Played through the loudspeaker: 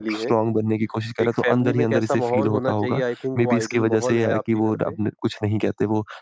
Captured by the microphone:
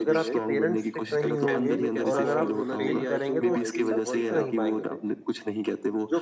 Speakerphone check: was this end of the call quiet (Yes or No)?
No